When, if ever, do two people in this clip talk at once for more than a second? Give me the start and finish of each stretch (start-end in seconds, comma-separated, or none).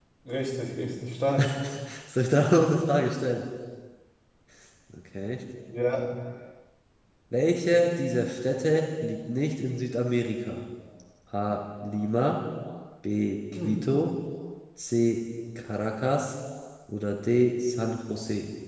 none